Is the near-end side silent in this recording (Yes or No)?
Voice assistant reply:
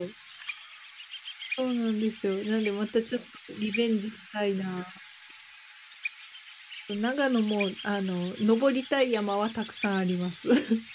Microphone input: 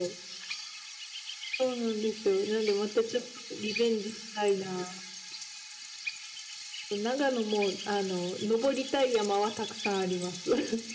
Yes